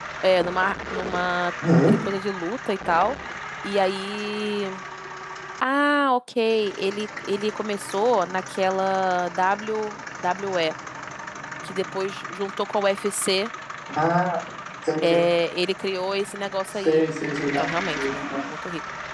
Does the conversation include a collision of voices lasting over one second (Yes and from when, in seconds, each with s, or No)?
No